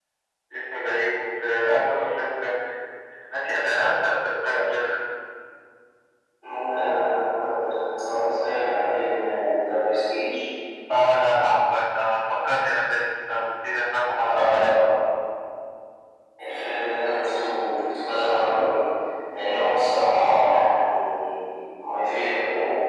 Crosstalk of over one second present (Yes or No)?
No